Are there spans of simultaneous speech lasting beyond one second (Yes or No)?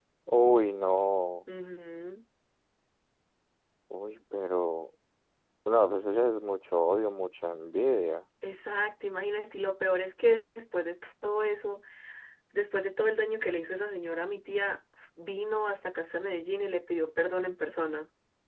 No